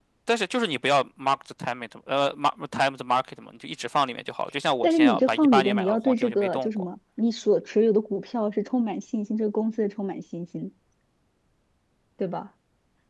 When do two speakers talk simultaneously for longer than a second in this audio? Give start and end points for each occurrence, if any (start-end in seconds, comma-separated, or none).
4.8-6.8